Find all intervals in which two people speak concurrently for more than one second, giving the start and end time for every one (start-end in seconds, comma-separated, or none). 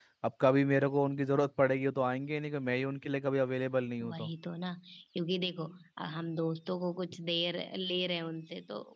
none